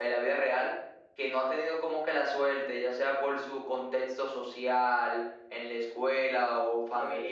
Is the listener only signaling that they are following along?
No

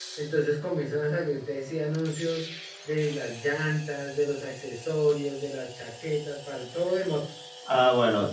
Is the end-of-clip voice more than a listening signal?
Yes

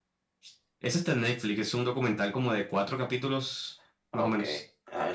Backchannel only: No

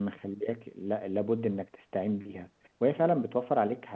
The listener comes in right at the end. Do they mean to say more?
No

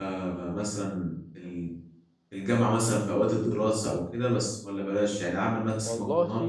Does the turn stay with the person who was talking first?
Yes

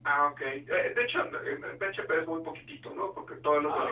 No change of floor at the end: Yes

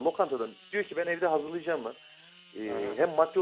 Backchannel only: Yes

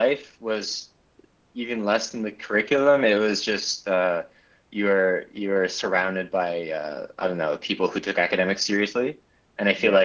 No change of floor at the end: Yes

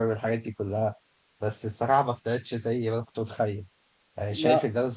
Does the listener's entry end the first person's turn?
No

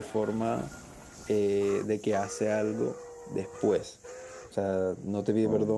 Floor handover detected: No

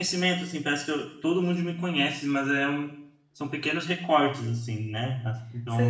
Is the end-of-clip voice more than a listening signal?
Yes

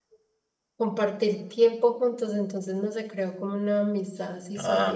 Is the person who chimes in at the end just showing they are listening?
No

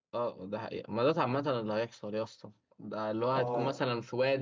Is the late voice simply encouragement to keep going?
Yes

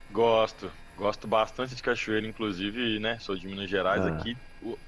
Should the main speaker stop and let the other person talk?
No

